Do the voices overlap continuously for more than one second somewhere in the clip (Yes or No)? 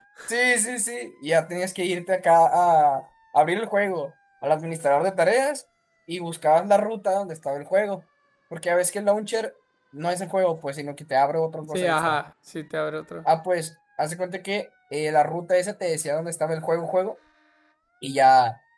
No